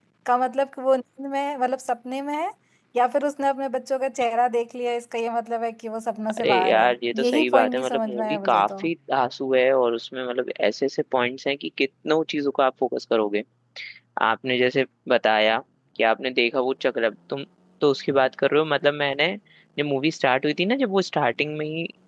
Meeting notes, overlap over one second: present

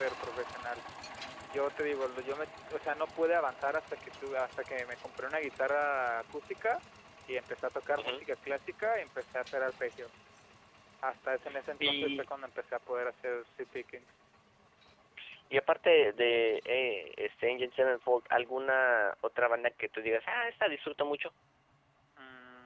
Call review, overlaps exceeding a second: none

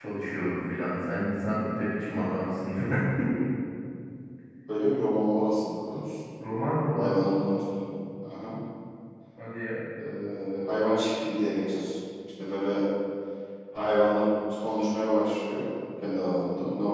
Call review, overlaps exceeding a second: none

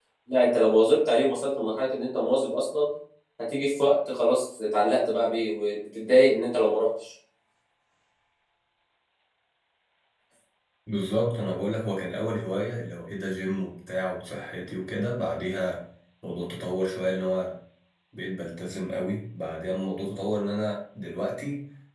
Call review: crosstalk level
none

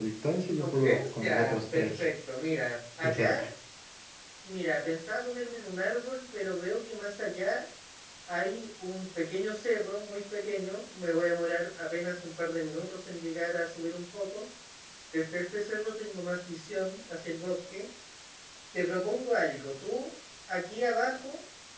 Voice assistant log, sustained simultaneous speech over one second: present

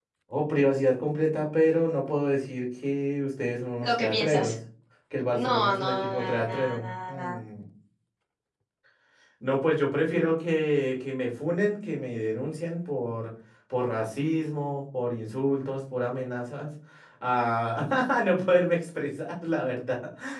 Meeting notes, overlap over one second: present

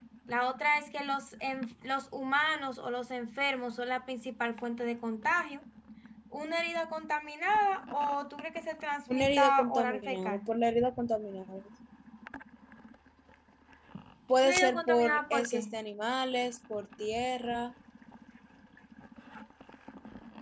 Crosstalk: present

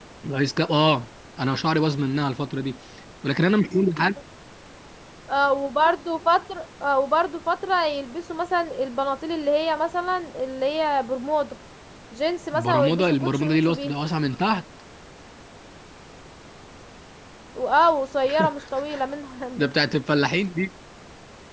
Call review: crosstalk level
present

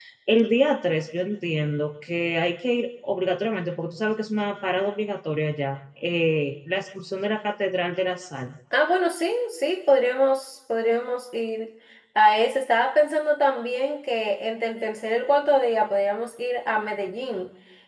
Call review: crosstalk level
none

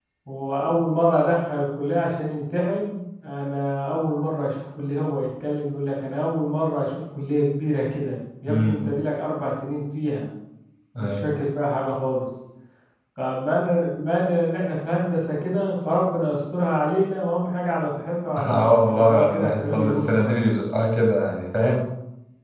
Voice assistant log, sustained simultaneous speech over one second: present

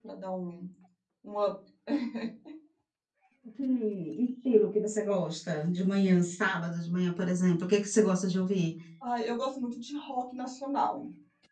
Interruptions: none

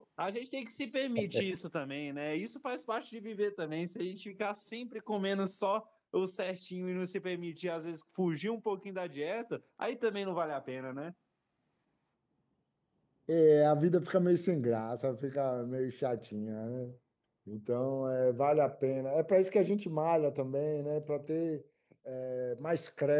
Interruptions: none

